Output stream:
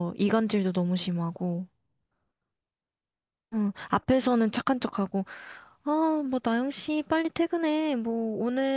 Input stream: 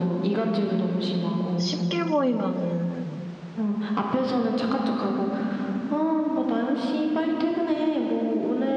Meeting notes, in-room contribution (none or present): present